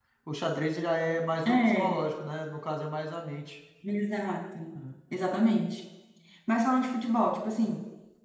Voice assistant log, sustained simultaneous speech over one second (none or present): none